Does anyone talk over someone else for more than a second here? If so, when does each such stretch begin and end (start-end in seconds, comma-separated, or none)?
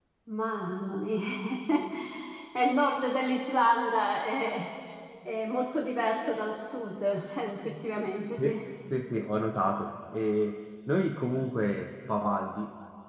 none